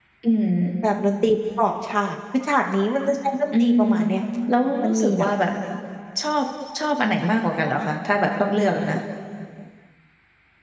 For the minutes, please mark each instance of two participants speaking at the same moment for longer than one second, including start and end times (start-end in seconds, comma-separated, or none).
none